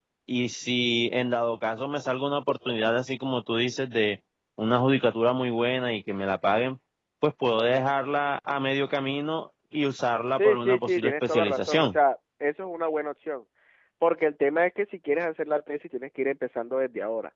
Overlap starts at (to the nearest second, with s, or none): 10 s